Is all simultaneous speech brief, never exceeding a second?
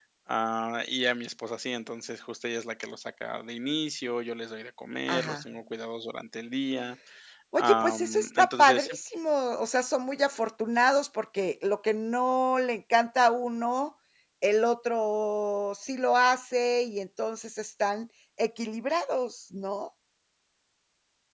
No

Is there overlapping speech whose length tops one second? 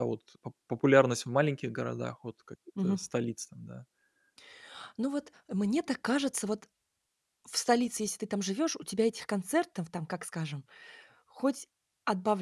No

